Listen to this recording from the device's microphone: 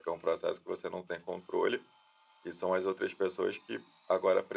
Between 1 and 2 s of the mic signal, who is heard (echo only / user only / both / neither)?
user only